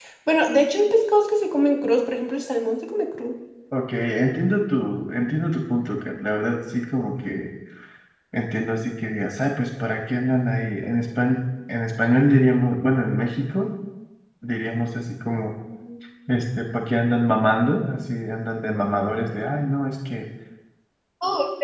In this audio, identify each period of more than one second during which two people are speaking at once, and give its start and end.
none

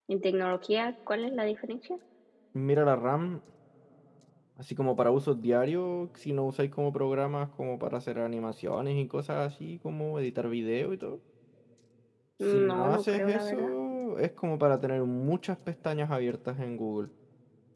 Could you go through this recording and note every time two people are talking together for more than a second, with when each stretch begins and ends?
12.5-13.7

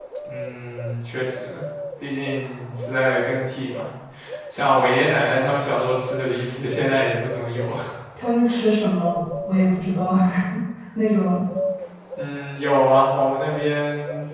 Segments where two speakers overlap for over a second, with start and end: none

